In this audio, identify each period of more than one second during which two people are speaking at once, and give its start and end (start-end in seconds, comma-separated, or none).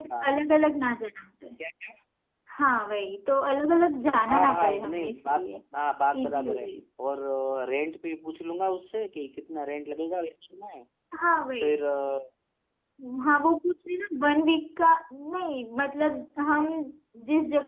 4.3-5.6